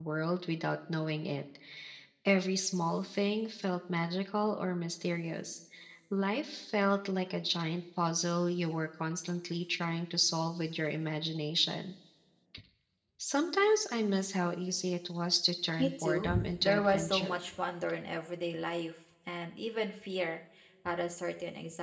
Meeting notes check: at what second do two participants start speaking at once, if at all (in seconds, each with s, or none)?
15.8 s